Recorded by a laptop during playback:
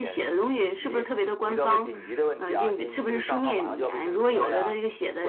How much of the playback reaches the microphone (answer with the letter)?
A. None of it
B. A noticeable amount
B